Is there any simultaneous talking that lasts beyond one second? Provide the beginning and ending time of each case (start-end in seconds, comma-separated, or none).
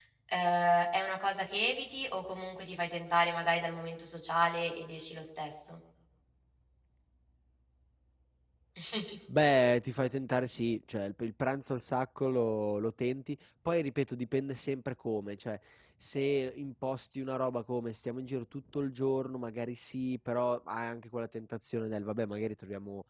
none